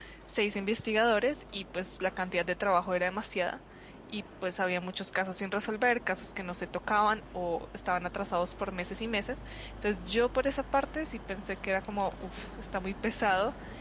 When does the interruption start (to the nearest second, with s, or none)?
none